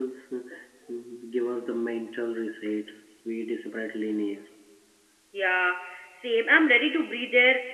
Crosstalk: none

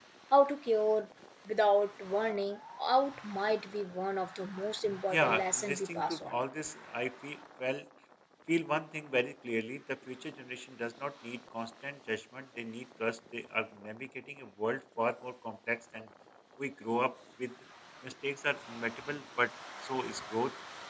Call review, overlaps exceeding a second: present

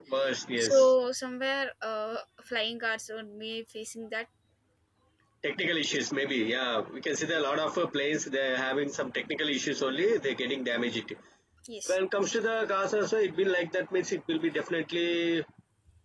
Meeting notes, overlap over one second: none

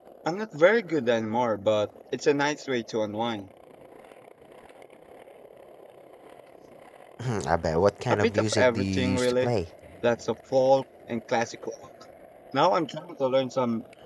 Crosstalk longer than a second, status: present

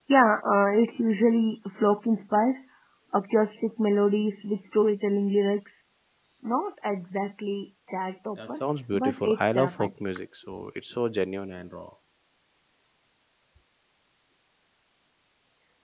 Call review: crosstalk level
present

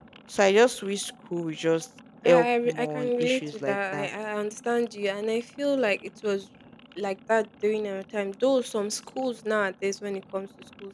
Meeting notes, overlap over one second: present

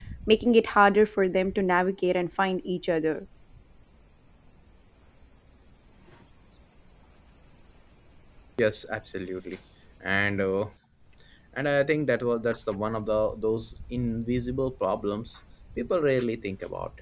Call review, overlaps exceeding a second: none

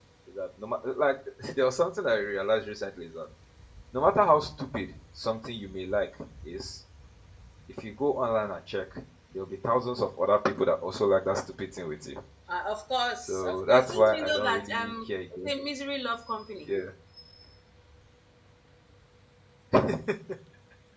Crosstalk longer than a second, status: present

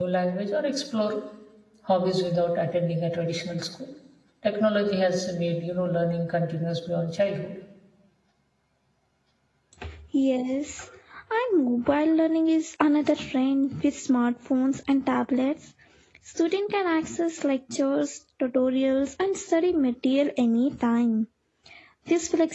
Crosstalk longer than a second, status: none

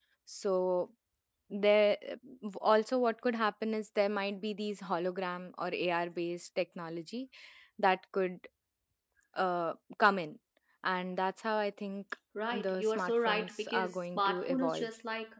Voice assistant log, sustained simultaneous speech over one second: present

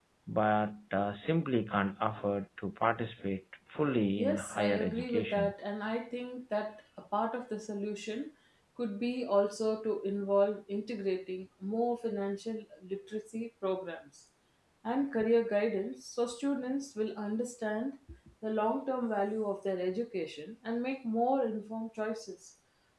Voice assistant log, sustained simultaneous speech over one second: present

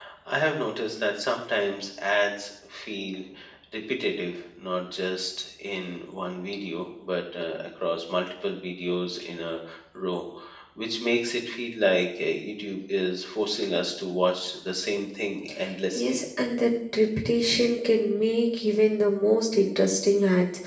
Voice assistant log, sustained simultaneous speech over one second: none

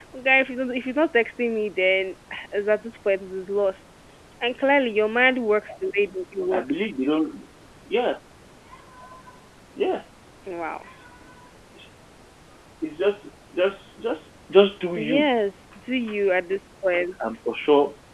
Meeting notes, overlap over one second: none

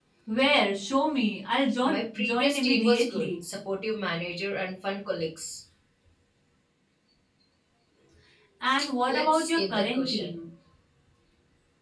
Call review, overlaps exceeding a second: present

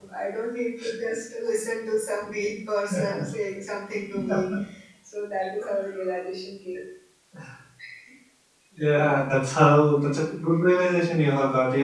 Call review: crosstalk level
none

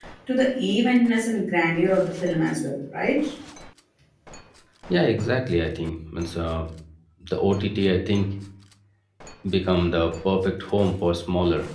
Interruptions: none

